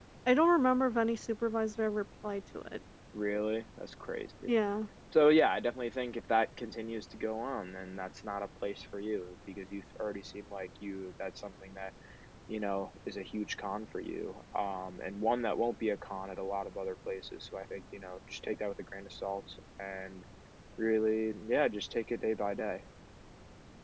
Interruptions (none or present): none